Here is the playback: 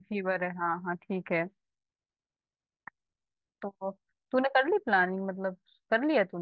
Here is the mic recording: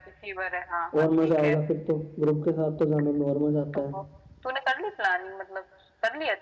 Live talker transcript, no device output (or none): और मजा आएगा फिर तो ग्रुप के साथ तो जाने में और मजा आता है